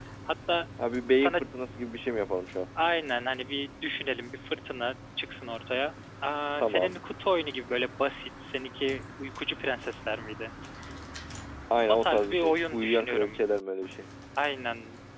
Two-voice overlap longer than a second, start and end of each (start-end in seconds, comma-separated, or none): 11.9-13.4